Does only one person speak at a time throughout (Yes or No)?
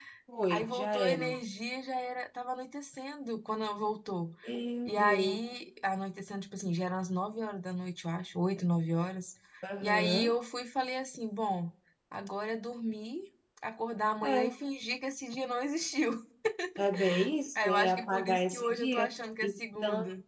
No